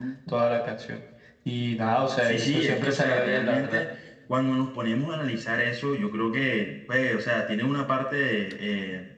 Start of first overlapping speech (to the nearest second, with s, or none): 2 s